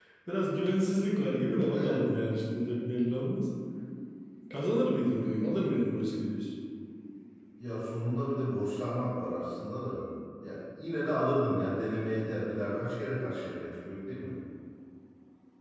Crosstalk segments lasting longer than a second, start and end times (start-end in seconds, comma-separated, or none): none